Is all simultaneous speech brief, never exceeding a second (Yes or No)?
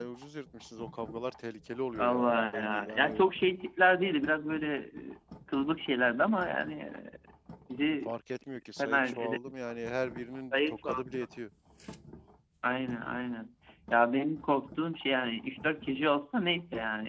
No